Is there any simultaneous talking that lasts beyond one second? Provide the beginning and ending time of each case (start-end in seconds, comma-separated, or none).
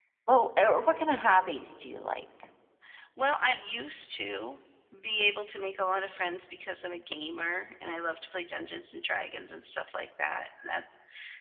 none